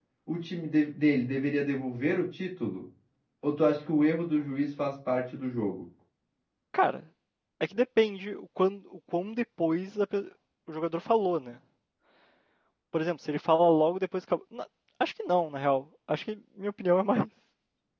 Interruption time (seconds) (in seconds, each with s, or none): none